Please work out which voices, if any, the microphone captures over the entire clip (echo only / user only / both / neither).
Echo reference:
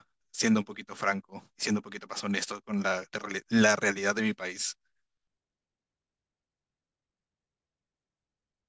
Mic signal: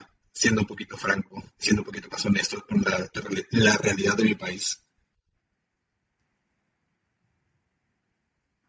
echo only